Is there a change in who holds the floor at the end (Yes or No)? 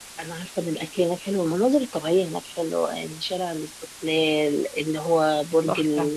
No